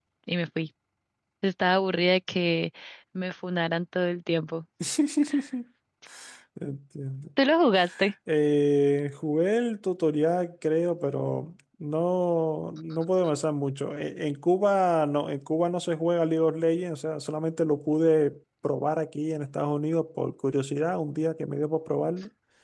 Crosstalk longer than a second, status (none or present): none